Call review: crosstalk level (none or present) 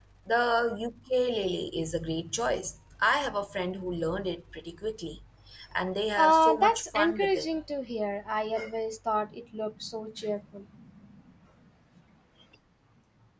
present